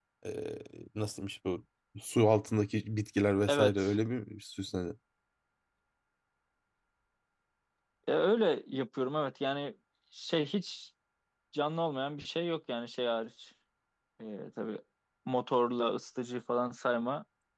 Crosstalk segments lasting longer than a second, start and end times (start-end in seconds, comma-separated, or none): none